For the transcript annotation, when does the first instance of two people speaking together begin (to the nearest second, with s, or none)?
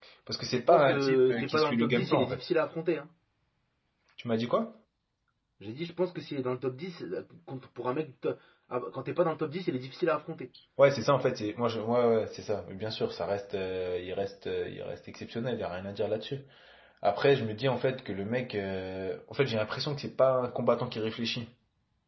1 s